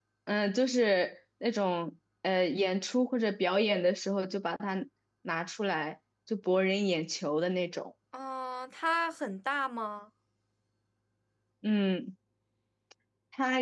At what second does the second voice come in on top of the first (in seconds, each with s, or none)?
none